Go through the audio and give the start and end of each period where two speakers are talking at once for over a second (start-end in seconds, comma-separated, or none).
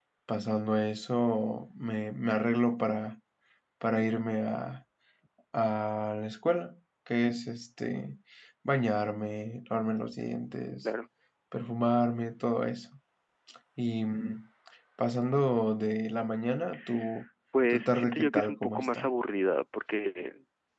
17.7-19.1